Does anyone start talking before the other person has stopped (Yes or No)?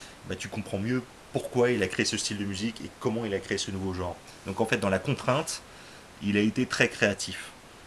No